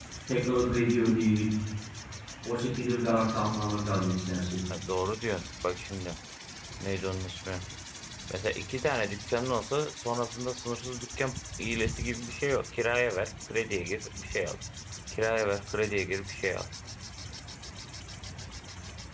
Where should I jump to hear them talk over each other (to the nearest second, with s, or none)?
none